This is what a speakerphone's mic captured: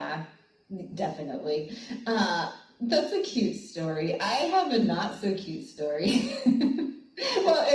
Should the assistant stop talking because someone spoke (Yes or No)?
No